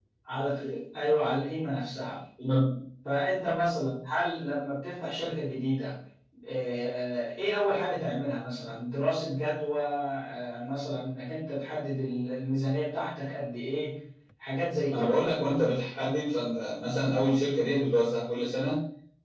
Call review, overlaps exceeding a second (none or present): none